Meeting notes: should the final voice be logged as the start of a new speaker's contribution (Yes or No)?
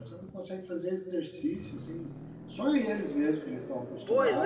Yes